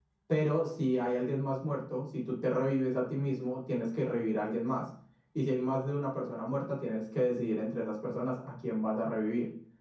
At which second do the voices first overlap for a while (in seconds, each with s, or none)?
none